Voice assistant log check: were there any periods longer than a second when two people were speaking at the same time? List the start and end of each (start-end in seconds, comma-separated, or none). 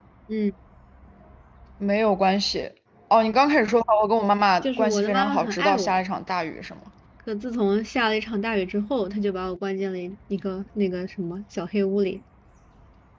4.6-6.0